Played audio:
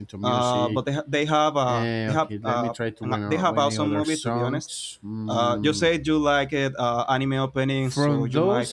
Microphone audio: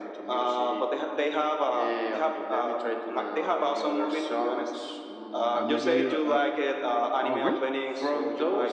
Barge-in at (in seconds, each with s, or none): 5.5 s